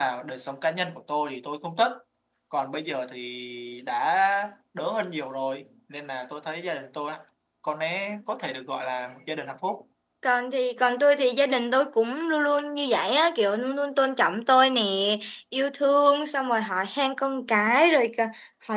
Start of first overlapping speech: none

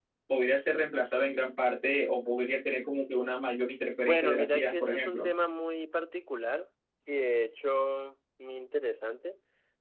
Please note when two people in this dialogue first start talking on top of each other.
4 s

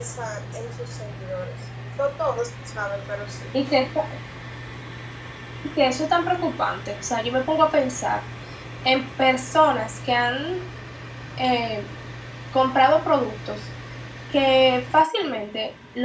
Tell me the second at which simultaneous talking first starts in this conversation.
none

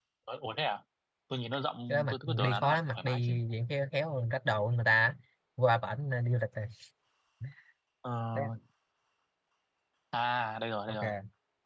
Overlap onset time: 2 s

